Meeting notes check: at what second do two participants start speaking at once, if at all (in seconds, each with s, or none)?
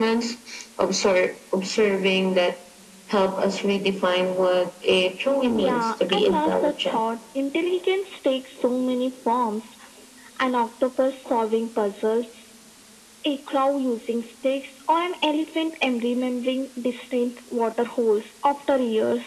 5.5 s